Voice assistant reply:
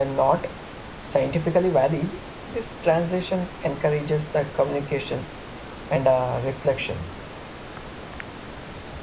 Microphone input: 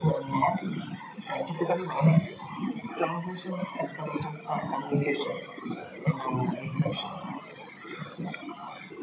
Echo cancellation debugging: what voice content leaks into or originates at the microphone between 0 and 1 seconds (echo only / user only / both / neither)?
echo only